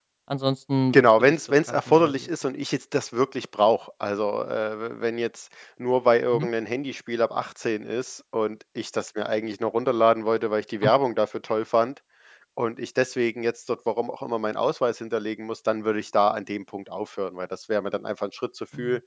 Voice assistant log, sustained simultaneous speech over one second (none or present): present